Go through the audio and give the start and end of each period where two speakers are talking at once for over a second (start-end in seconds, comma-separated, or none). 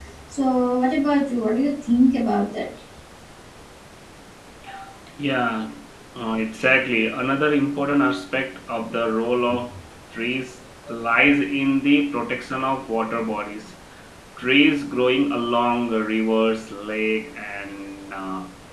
none